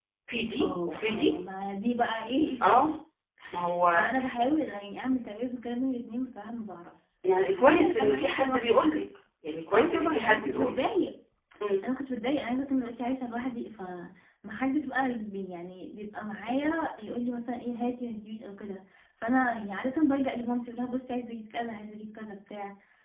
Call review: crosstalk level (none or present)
present